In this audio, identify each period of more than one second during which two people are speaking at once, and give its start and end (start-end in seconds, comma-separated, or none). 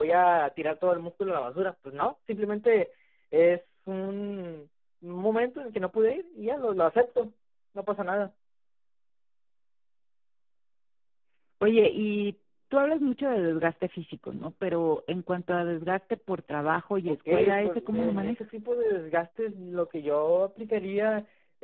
17.1-18.4